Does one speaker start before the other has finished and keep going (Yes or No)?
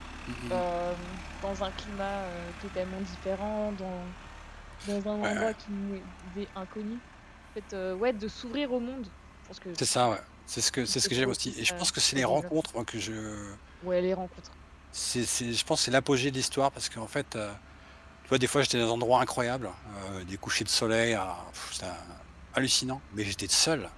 Yes